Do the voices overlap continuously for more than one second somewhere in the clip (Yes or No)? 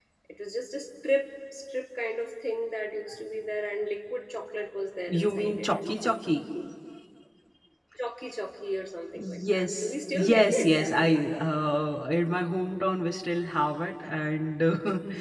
Yes